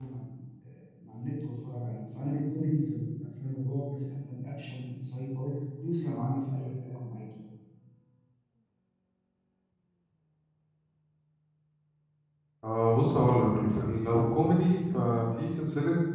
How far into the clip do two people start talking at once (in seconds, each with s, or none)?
none